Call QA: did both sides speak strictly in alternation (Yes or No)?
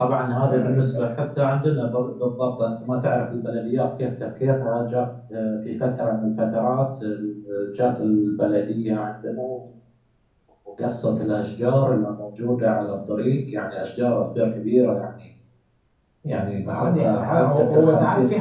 No